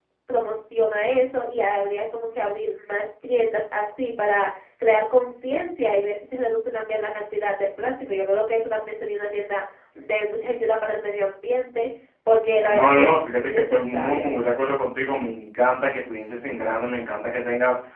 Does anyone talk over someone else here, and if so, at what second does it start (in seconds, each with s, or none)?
12.6 s